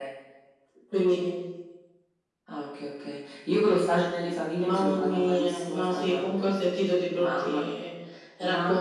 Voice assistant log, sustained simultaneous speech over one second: present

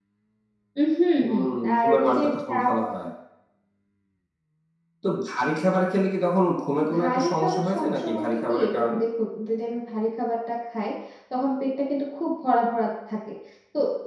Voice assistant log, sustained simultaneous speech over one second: present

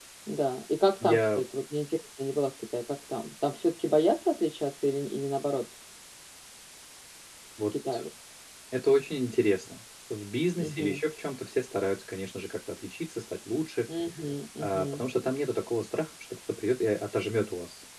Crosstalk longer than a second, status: none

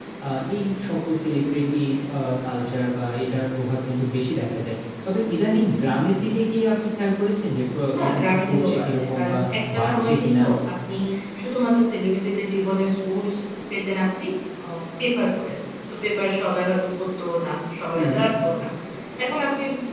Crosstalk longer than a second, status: present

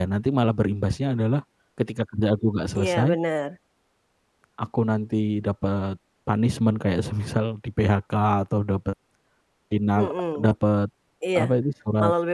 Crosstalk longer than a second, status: none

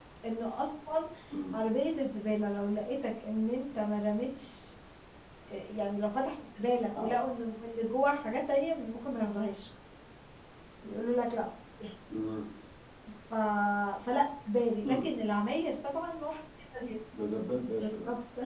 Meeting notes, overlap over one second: none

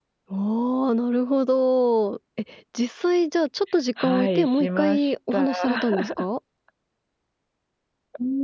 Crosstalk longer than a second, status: present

